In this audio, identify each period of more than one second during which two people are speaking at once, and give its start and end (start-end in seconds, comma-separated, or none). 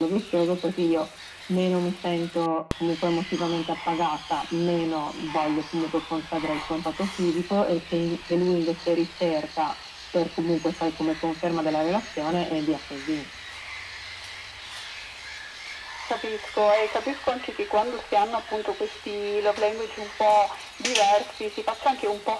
none